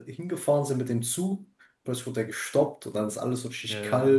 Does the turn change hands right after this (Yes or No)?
No